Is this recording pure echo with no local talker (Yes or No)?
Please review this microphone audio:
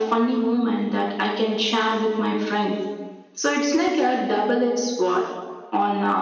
Yes